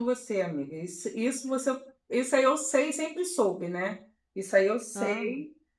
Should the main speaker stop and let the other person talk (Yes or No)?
No